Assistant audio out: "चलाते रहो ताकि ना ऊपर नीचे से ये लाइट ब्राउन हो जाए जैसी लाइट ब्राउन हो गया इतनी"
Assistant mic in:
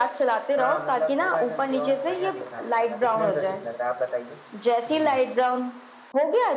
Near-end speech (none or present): present